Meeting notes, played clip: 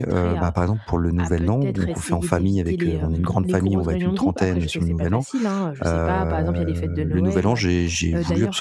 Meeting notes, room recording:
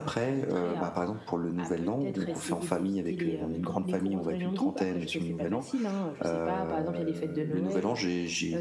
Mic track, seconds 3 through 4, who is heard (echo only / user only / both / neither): echo only